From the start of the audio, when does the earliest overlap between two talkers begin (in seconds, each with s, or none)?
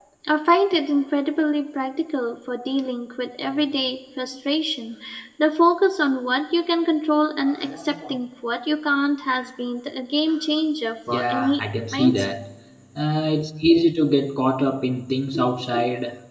11.1 s